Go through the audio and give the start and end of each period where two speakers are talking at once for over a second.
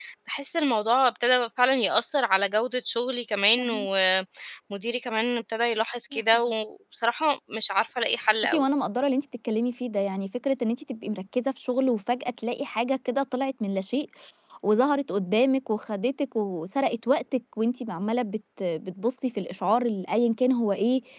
none

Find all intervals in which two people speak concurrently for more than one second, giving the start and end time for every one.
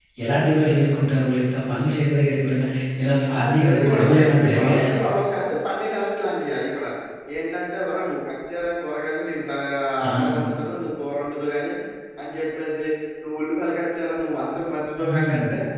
3.3-4.9

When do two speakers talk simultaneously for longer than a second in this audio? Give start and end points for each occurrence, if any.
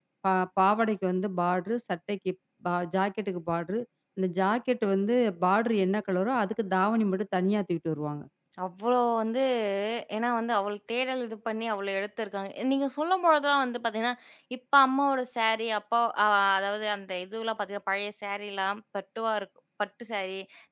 none

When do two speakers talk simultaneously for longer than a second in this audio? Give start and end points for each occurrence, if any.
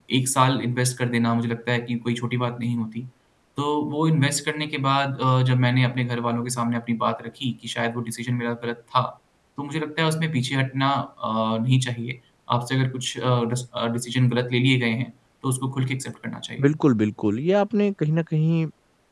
none

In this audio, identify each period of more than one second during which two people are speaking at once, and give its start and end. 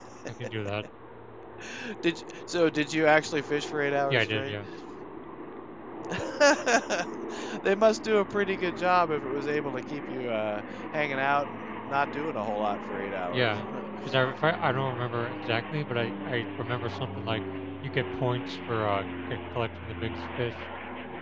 none

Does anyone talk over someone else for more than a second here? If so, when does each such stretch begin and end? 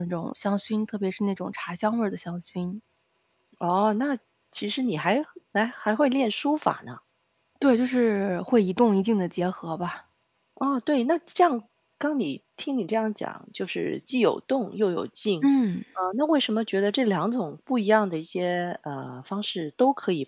none

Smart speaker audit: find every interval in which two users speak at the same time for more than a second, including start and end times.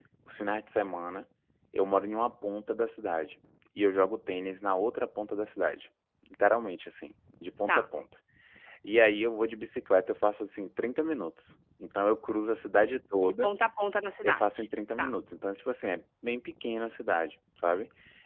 none

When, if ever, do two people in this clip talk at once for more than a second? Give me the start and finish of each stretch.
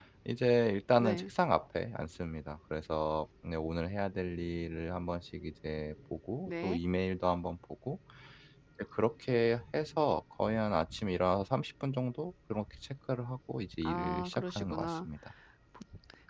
13.8-15.1

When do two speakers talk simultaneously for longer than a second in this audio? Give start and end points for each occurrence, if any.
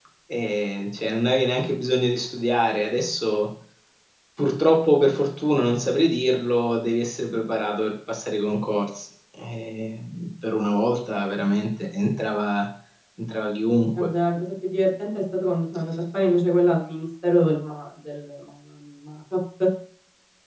none

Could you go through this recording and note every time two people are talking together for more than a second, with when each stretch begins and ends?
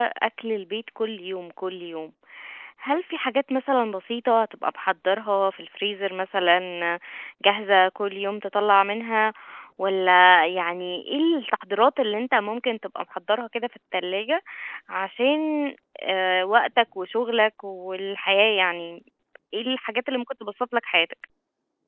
none

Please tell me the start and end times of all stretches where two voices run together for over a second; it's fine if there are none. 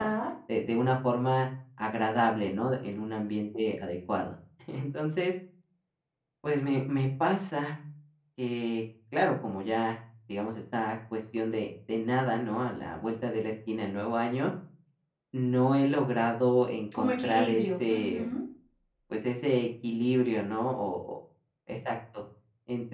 17.0-18.3

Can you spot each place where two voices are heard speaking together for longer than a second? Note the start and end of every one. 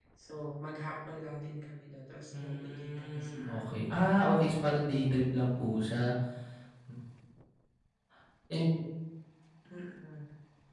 2.3-4.0

